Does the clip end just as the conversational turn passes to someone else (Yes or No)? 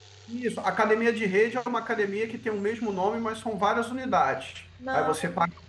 No